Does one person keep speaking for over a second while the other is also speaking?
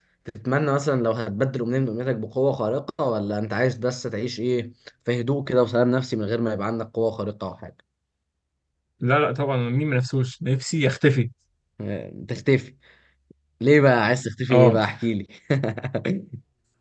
No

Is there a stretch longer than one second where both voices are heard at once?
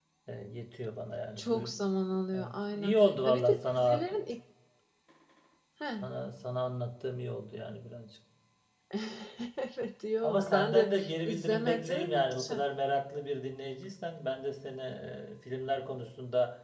Yes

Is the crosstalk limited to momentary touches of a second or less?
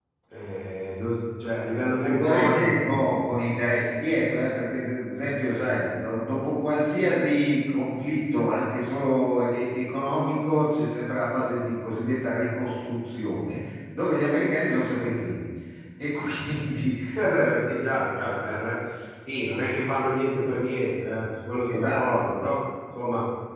No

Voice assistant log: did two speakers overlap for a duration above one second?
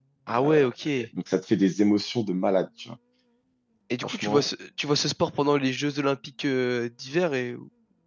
No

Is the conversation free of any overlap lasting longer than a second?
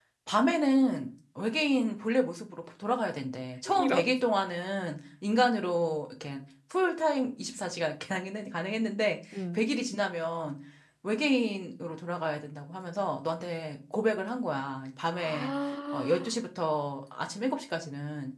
Yes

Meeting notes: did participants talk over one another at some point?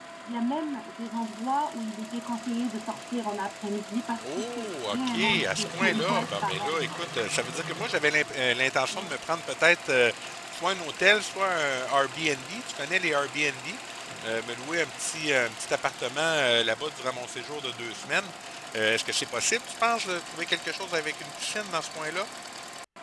Yes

